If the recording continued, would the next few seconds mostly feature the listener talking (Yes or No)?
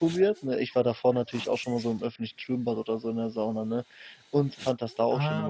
No